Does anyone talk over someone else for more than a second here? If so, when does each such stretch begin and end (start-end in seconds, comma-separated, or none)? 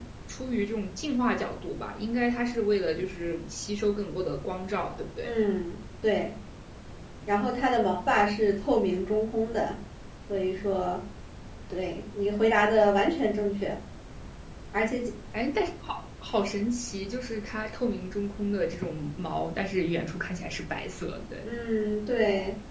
none